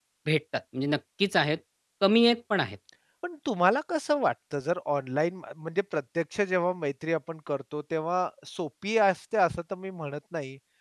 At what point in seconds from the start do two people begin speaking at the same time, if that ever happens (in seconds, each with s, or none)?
none